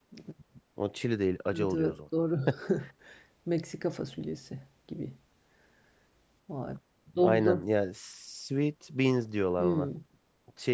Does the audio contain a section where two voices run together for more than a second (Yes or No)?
No